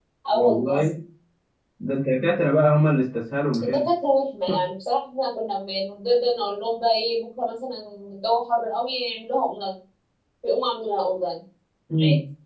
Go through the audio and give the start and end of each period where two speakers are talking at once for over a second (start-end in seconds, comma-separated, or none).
none